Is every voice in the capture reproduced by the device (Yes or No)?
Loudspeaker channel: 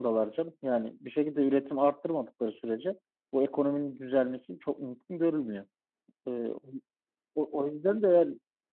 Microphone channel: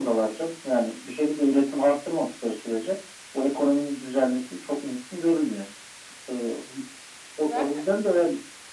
No